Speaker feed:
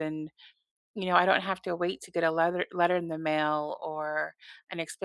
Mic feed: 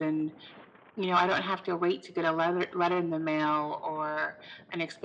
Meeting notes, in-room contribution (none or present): none